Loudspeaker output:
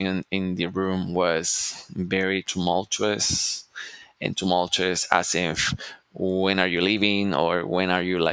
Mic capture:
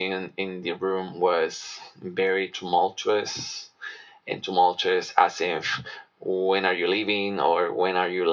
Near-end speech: none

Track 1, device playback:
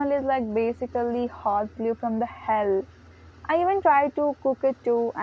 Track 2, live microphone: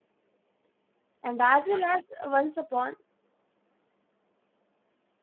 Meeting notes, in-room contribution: present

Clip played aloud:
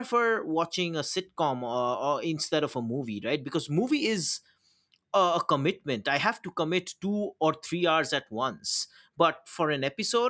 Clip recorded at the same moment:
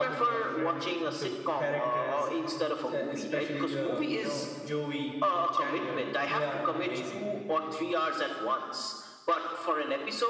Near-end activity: present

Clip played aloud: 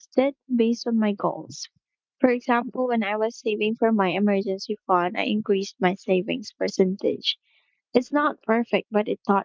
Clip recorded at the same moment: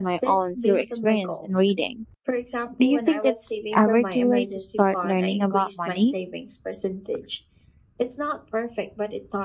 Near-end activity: present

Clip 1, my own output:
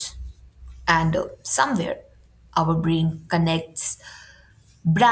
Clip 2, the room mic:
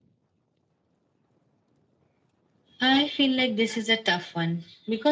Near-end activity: present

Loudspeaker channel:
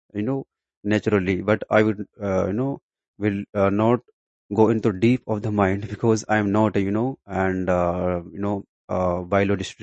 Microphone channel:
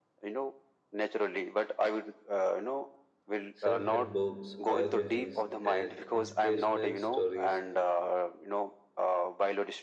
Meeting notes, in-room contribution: present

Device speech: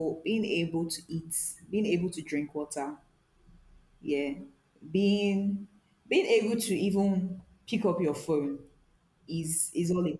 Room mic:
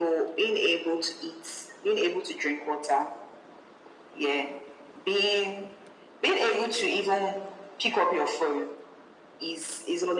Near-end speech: none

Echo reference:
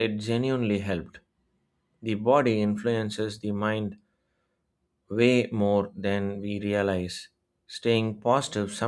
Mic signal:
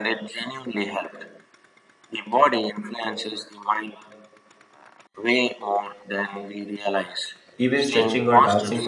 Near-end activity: present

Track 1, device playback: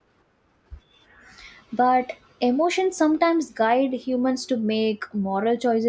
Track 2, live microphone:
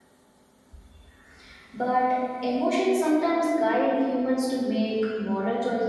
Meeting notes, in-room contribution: none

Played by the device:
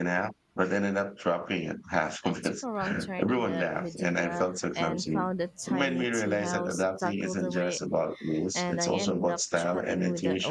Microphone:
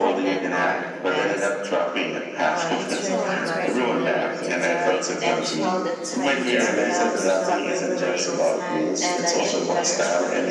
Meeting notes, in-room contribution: present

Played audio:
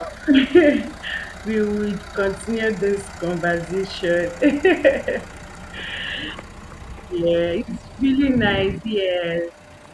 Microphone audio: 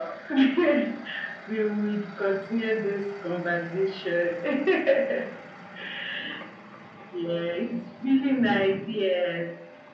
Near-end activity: none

